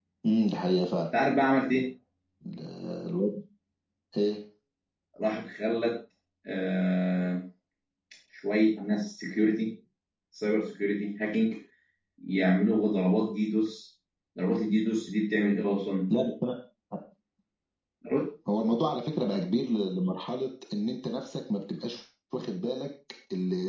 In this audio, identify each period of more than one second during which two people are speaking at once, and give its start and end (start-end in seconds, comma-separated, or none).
none